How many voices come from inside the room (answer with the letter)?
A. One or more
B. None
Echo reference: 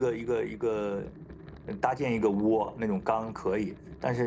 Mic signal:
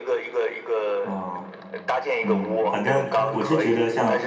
A